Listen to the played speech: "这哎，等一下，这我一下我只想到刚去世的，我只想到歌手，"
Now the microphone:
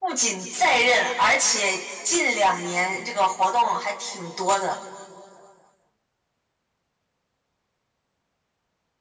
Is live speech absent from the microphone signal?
No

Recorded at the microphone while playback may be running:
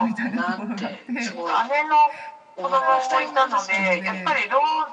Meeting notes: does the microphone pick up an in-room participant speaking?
Yes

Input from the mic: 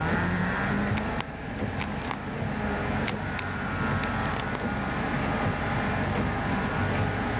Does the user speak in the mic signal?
No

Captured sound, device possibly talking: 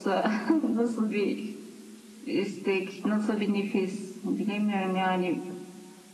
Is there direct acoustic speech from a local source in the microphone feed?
No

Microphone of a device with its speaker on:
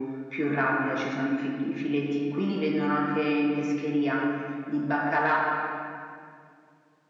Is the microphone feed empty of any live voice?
Yes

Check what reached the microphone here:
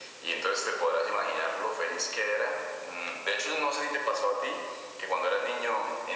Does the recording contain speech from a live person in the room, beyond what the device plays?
No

